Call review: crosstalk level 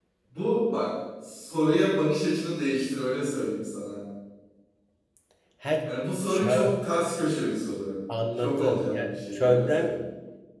present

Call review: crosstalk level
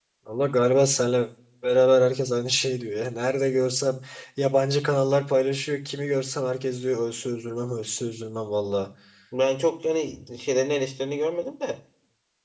none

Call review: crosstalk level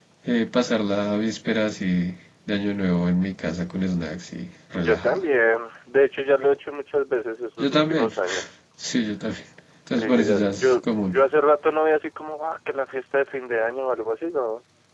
present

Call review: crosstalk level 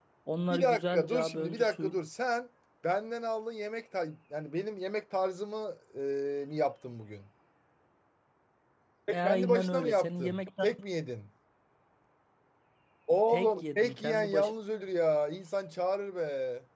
present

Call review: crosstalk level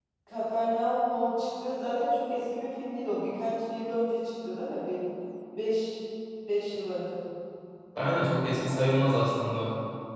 none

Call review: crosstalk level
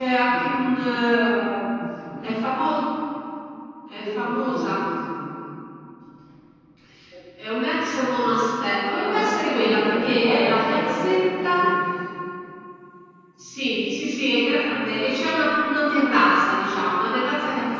present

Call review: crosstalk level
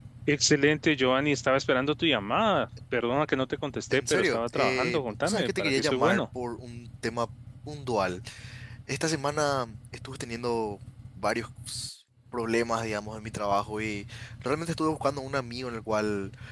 present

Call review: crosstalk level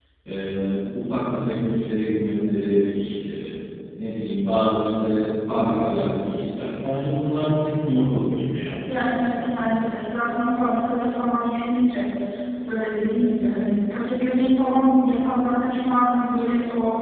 present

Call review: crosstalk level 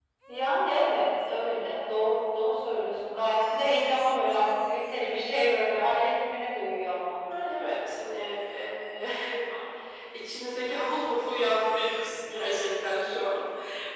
none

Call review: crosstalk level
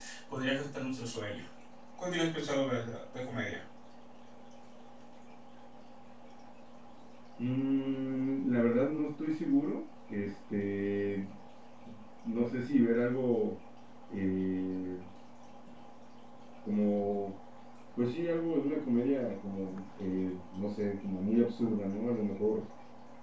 none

